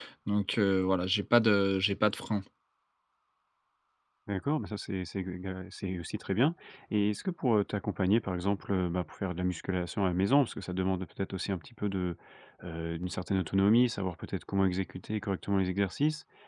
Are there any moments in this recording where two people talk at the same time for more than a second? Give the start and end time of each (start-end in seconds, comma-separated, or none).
none